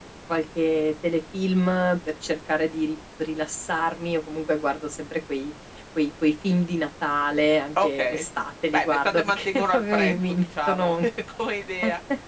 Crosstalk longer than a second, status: present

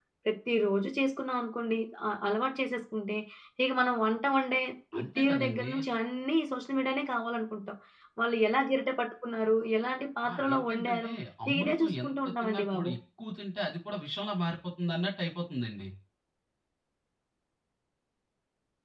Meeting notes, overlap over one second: present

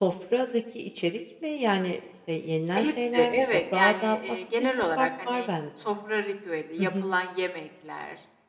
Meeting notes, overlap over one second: present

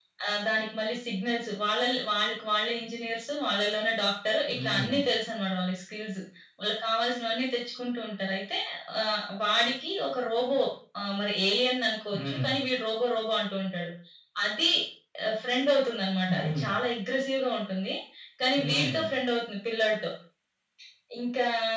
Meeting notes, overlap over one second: none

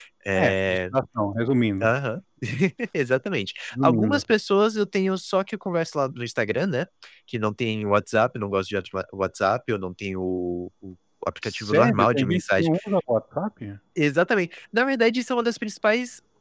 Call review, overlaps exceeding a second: present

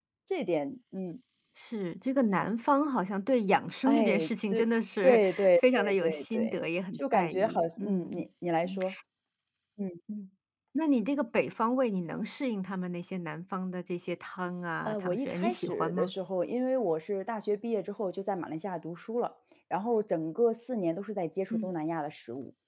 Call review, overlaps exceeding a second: present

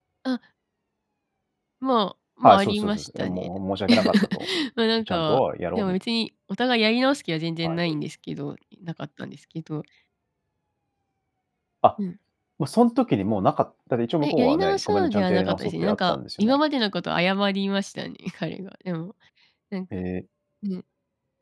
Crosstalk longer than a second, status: present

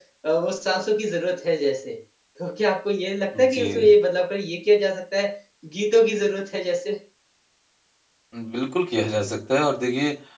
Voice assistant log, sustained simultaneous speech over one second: none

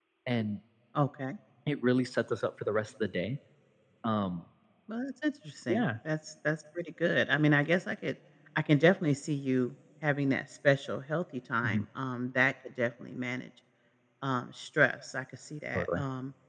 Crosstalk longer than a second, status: none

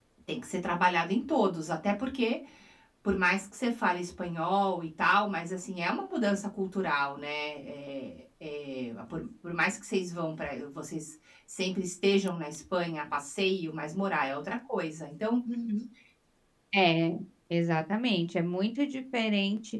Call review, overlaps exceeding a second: none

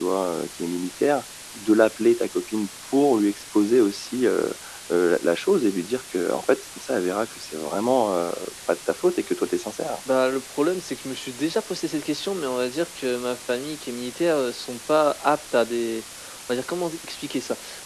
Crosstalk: none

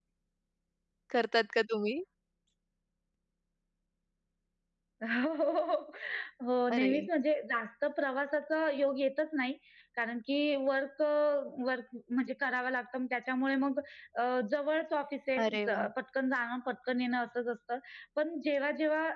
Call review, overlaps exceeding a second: none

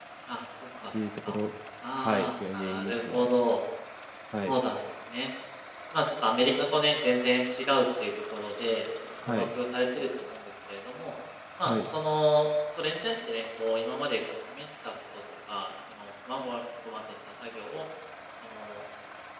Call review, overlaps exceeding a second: present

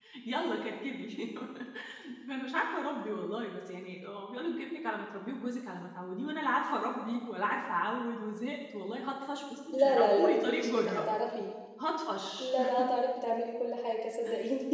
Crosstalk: present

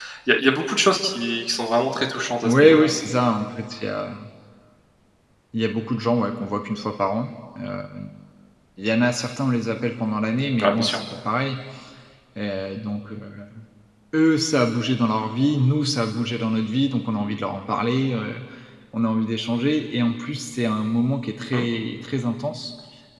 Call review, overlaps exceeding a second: none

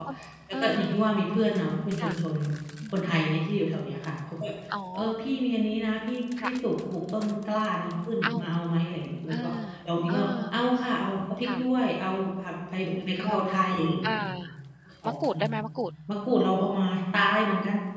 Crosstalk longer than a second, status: none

